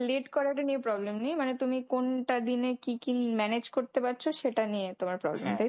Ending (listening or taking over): taking over